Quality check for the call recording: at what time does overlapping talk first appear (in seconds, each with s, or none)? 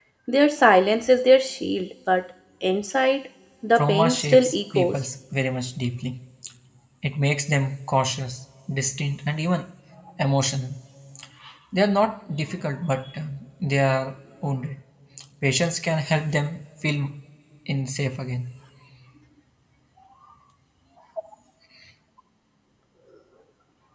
3.8 s